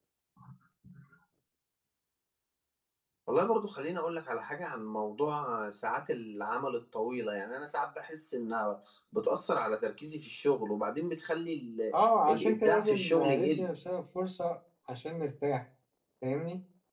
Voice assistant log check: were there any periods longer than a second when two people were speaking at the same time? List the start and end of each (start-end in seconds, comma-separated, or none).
12.3-13.7